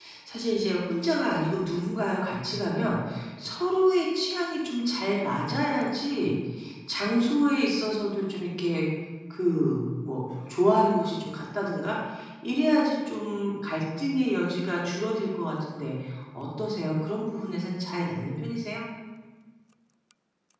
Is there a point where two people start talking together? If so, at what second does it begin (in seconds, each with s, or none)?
none